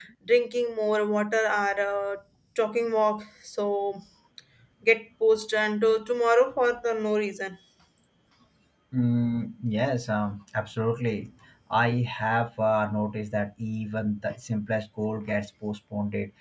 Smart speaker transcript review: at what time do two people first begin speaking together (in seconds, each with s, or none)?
none